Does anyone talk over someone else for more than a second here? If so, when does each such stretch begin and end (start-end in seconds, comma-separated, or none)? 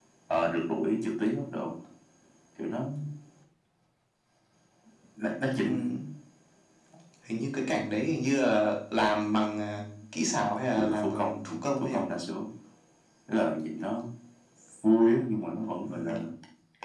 10.8-12.0